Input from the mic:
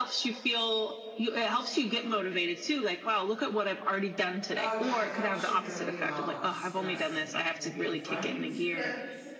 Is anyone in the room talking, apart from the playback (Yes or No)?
Yes